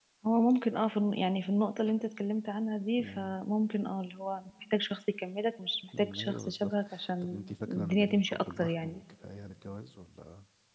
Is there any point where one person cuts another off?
Yes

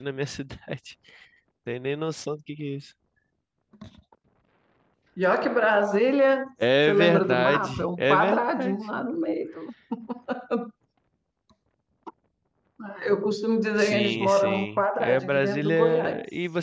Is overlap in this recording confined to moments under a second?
No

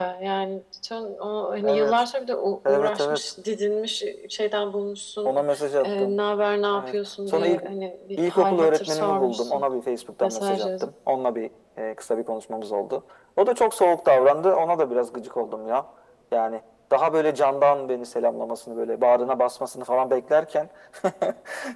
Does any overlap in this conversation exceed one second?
Yes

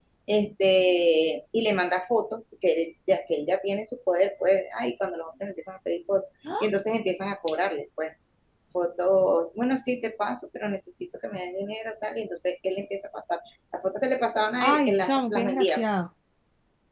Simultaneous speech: Yes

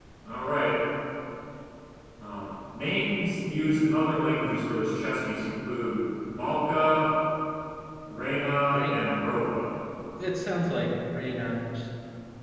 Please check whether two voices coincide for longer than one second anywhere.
No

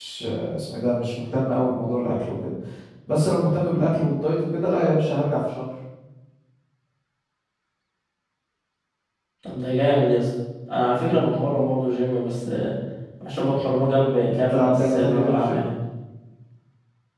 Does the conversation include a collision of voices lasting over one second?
Yes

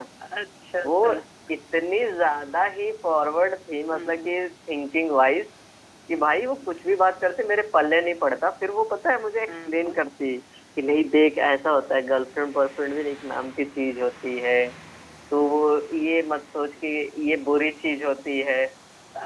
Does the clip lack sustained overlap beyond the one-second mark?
Yes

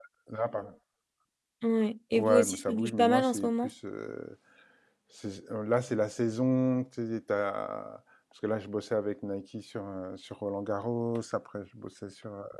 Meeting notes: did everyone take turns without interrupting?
No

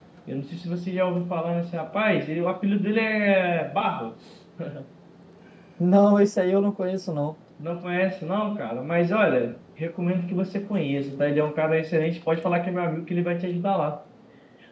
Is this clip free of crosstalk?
Yes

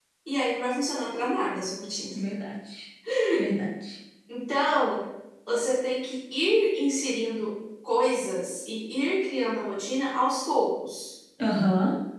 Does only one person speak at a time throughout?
Yes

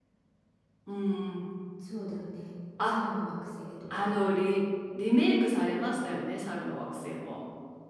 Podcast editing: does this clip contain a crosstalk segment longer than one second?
No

